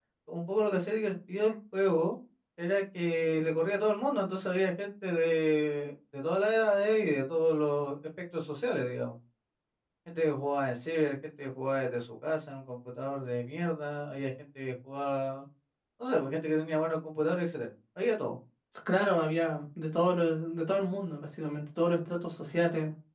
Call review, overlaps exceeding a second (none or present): none